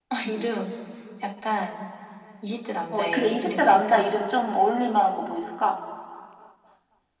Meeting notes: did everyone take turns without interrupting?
No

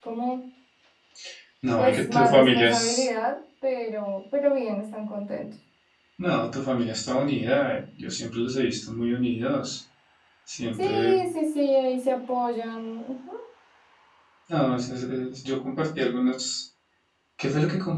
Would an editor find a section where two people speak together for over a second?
Yes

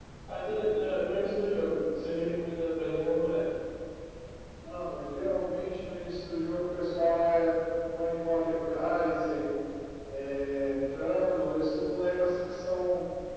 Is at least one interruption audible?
No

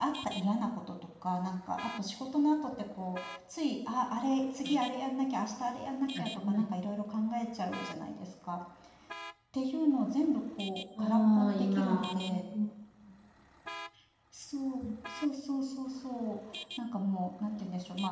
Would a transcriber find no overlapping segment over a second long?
No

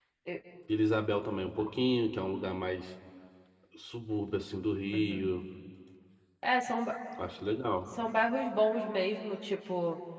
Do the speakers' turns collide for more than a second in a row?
No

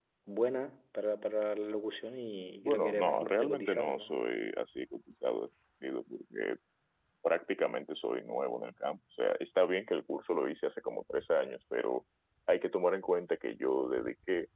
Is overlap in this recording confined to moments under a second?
No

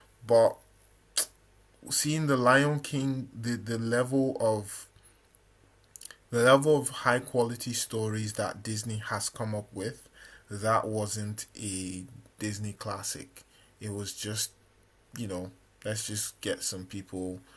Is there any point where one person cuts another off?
No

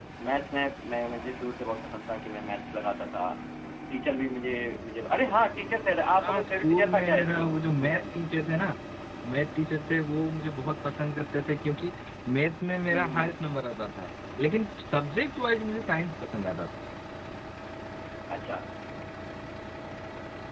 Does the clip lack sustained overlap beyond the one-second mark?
No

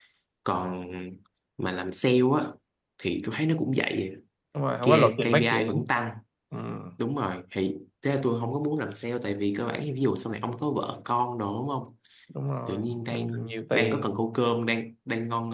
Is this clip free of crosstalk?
No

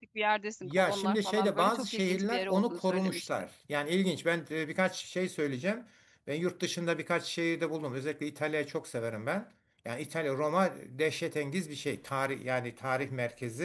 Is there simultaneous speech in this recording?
Yes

